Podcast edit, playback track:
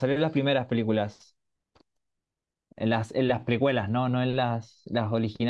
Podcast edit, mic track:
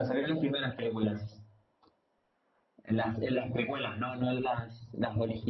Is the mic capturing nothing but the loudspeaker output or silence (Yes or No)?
Yes